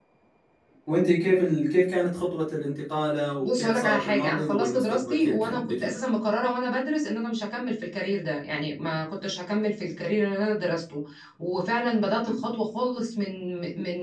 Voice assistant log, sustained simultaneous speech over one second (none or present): present